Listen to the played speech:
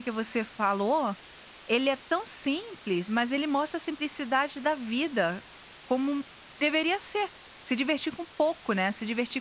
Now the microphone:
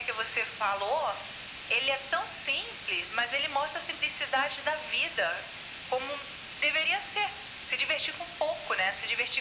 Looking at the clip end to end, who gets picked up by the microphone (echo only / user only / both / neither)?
echo only